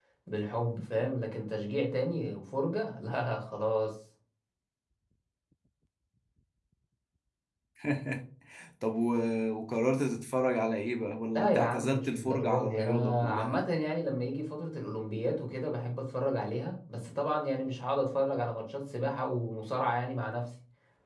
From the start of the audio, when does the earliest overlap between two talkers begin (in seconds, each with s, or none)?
11.3 s